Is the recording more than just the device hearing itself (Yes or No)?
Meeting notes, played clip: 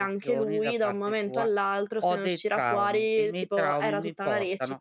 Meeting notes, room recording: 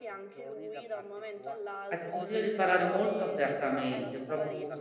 Yes